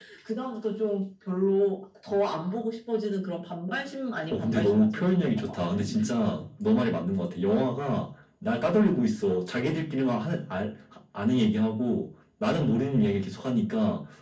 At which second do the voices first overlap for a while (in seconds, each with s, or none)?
4.2 s